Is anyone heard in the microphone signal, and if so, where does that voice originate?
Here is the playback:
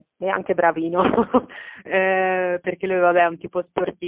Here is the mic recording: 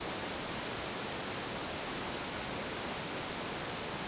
neither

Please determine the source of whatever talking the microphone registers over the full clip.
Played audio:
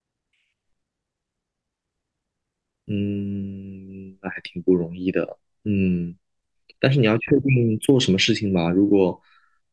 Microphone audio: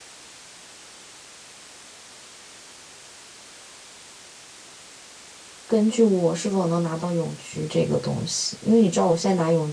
user only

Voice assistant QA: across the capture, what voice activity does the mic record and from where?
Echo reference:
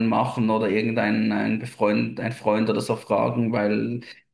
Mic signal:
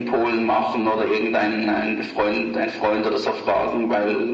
echo only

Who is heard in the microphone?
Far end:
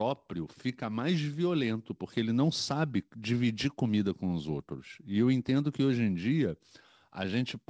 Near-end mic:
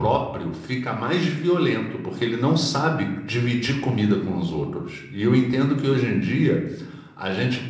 echo only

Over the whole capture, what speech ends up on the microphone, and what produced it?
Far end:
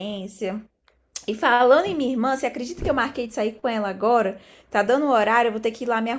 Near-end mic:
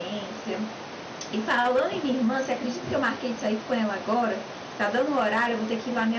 echo only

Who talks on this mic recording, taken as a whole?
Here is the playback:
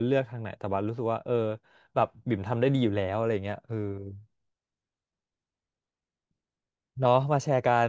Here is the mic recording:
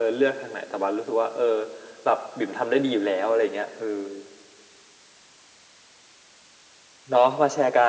echo only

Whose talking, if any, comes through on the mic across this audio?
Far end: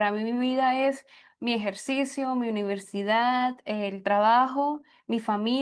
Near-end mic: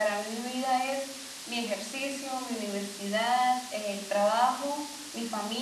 echo only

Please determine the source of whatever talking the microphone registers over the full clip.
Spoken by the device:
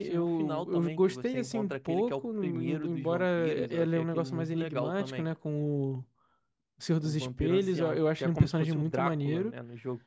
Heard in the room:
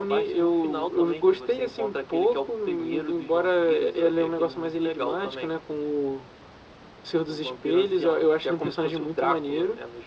echo only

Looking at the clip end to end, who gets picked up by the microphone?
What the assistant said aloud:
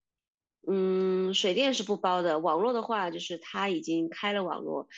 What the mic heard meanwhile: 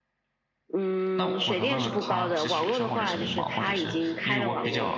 both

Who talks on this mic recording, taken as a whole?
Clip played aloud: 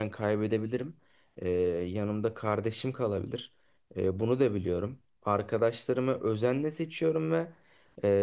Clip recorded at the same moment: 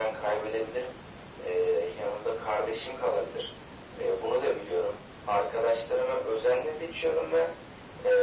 echo only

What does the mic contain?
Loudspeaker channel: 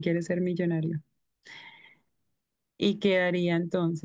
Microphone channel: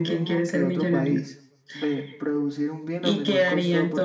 both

